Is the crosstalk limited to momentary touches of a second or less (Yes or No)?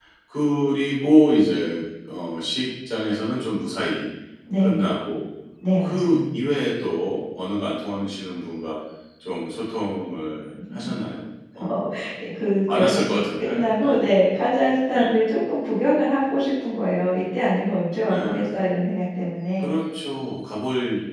No